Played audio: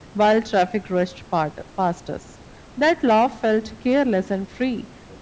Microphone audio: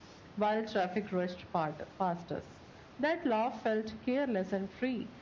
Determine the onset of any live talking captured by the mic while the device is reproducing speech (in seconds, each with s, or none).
none